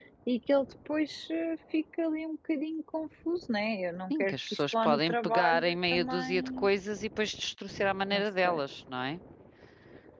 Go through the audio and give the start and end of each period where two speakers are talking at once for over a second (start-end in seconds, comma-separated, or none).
4.1-6.7